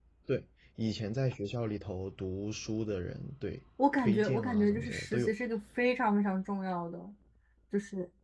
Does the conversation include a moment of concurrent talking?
Yes, from 3.8 s

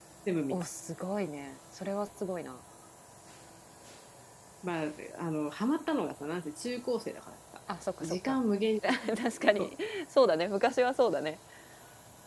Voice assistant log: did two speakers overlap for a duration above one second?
No

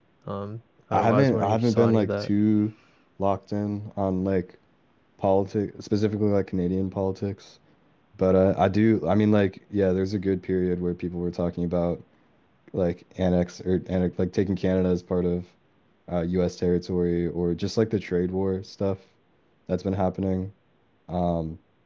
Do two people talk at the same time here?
Yes, from 0.9 s

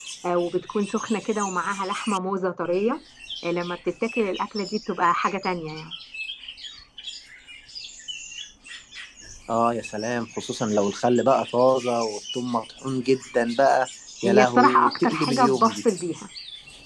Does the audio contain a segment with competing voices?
Yes, from 14.2 s

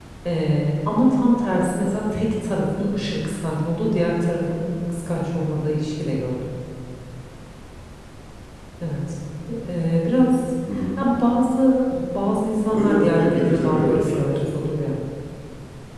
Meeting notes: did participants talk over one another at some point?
Yes, from 12.7 s

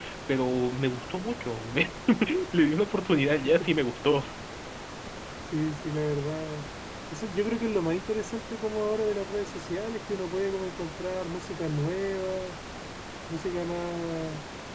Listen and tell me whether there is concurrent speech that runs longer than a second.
No

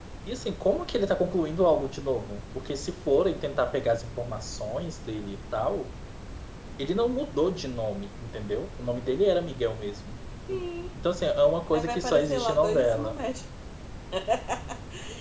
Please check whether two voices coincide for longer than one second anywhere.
Yes, from 11.7 s

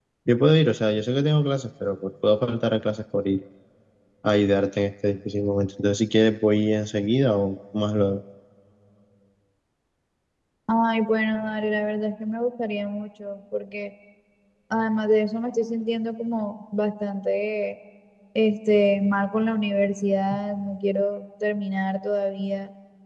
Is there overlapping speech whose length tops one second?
No

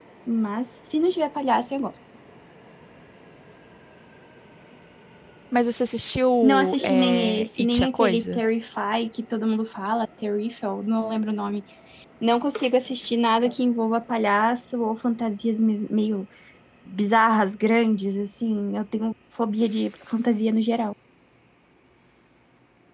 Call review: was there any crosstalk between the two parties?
Yes, from 6.4 s

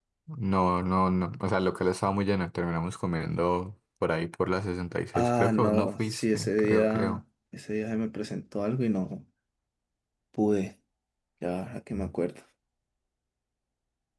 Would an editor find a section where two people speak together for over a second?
Yes, from 5.1 s

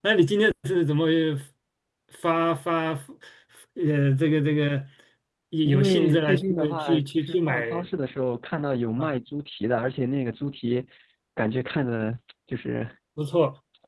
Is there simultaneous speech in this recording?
Yes, from 5.7 s

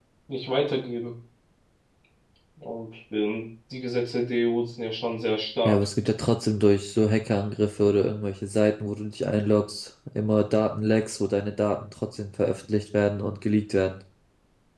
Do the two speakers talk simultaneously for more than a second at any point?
No

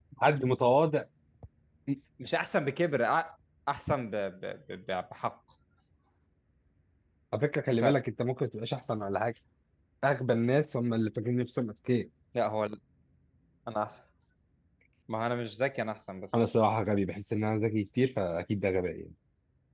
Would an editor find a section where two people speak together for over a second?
No

